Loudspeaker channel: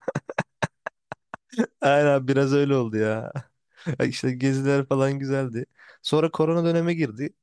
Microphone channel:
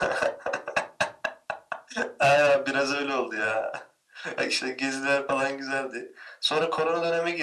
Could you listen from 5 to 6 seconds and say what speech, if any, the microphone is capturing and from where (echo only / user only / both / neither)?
echo only